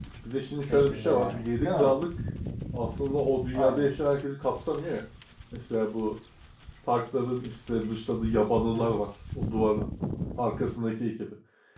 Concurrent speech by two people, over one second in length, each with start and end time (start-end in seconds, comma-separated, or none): 0.7-2.0